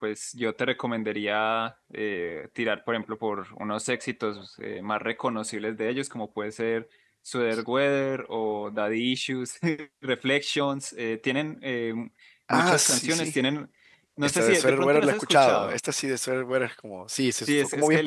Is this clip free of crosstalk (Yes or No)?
No